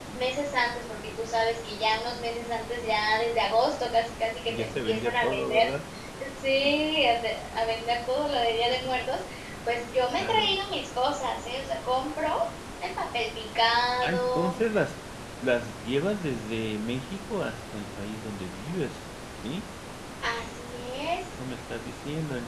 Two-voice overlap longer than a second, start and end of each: 4.5-5.7

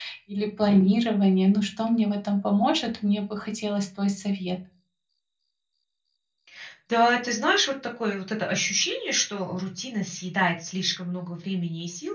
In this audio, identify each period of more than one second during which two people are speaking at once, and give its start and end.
none

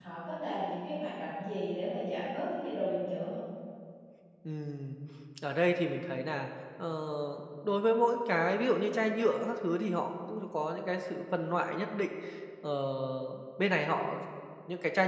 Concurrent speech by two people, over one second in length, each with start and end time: none

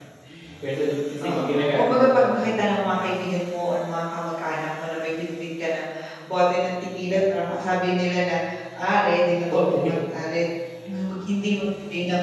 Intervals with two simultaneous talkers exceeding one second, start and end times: 1.2-3.0

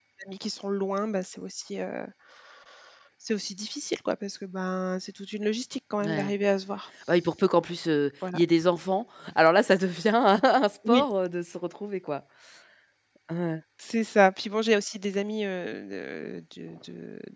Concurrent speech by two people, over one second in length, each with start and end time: none

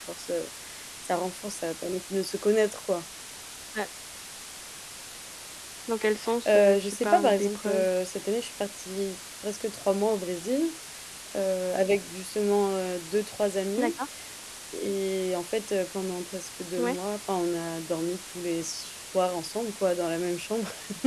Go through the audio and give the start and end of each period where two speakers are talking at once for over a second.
6.5-7.9

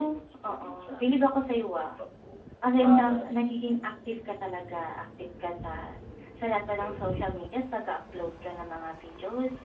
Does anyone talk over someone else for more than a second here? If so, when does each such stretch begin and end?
0.6-1.8

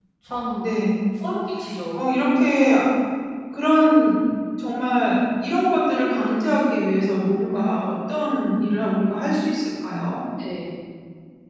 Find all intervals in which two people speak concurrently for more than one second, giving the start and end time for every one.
none

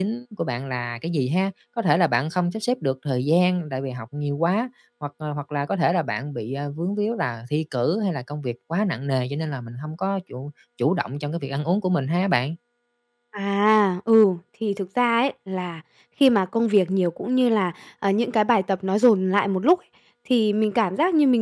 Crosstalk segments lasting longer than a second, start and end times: none

